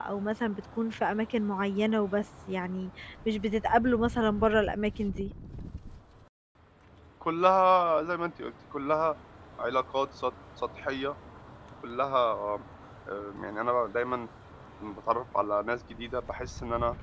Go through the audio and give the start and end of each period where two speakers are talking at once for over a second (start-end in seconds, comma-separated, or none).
none